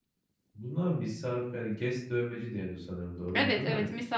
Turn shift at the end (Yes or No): Yes